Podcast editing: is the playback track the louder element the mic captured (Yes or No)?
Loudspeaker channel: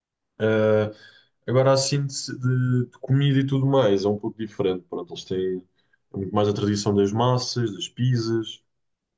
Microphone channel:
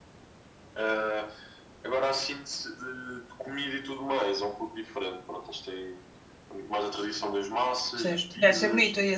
No